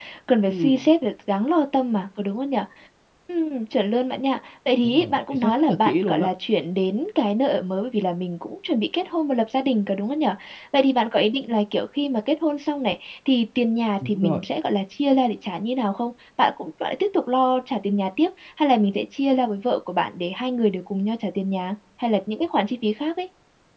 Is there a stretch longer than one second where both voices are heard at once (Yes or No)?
Yes